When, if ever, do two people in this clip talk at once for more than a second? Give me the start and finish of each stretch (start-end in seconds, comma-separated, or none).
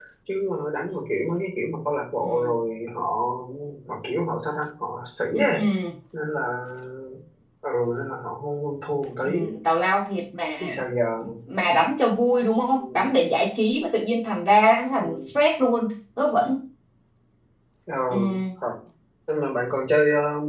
none